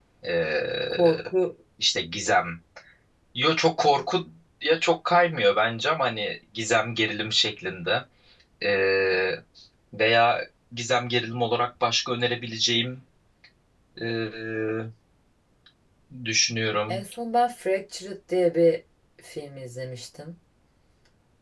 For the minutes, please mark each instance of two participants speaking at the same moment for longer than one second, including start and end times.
none

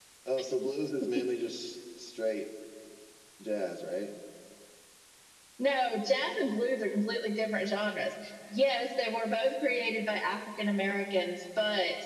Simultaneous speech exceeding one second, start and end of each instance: none

